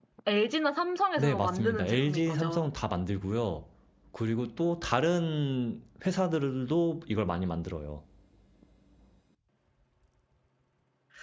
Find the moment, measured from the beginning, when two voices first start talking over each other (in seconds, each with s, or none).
1.2 s